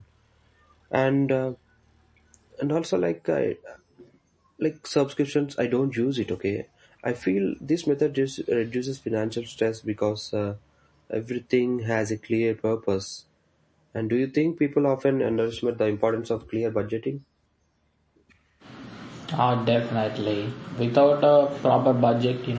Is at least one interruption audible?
No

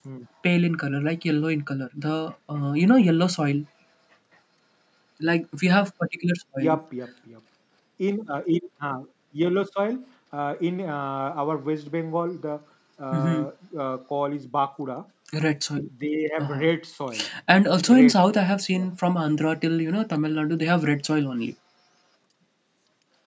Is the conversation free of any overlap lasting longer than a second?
Yes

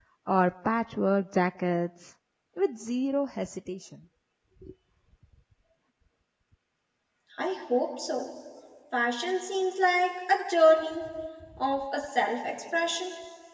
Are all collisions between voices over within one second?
Yes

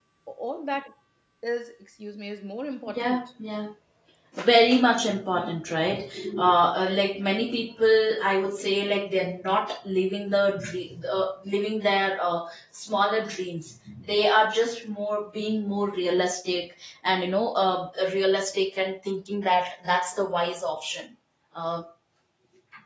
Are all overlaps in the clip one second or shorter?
Yes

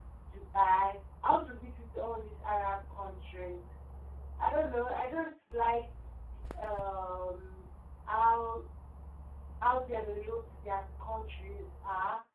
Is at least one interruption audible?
No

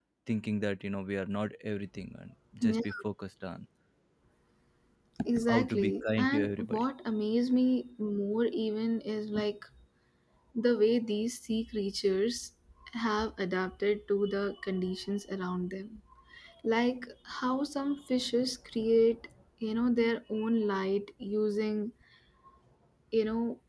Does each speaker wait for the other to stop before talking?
No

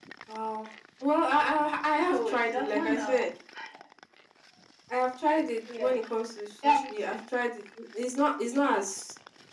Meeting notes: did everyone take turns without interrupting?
No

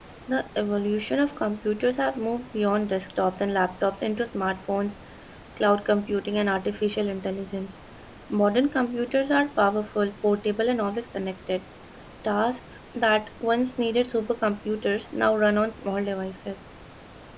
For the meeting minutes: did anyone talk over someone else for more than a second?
No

